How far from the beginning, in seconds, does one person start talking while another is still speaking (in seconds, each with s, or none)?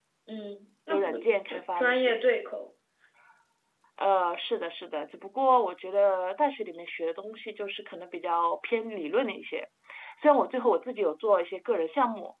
0.9 s